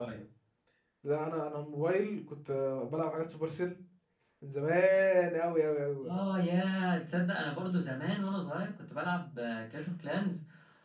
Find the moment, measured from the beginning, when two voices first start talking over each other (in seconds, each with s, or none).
none